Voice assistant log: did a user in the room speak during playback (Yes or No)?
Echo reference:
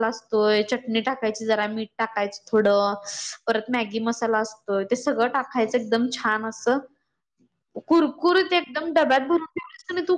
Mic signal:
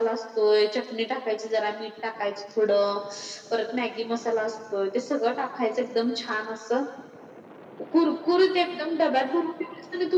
No